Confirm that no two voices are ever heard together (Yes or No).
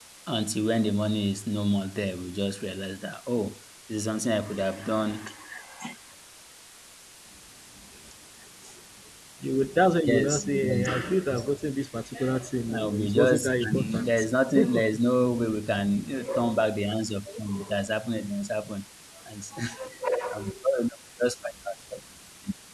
No